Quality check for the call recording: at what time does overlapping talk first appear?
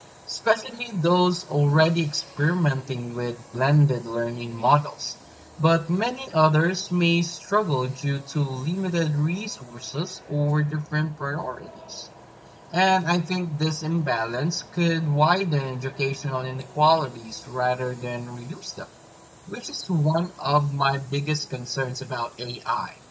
none

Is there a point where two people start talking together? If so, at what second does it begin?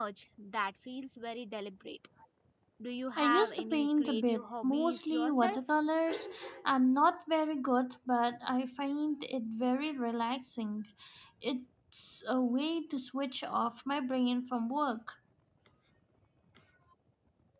3.2 s

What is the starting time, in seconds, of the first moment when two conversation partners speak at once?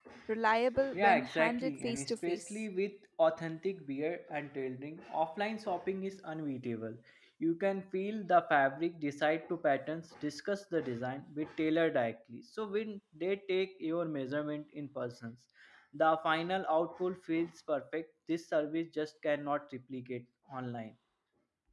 0.9 s

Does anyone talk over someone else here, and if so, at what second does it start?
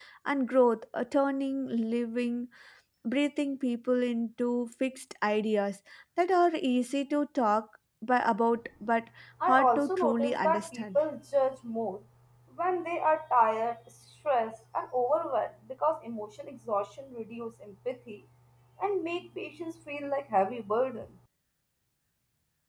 9.4 s

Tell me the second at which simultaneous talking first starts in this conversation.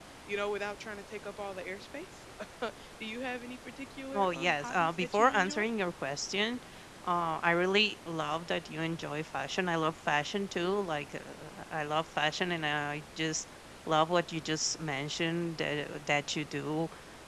4.1 s

